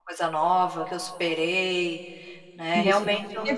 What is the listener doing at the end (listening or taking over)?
taking over